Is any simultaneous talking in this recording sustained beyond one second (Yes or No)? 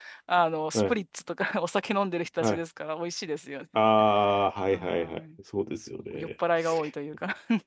No